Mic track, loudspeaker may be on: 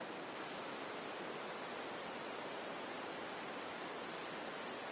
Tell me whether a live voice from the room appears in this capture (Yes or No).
No